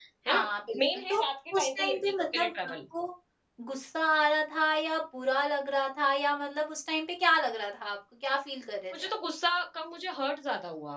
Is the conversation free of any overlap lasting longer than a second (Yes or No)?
No